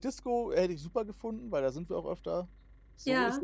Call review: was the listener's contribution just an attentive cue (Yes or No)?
No